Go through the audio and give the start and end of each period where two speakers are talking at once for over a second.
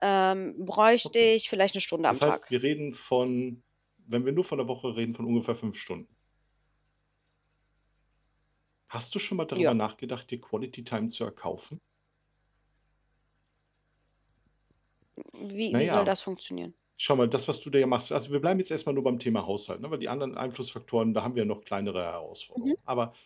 none

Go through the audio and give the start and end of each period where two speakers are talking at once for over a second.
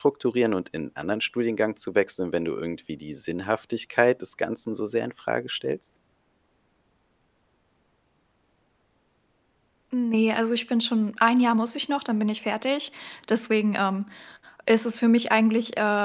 none

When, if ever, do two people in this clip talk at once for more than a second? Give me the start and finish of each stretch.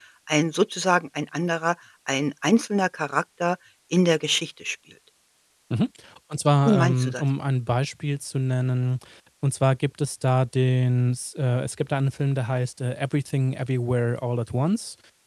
none

